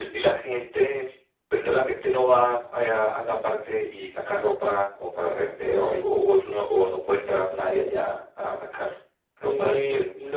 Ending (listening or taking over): taking over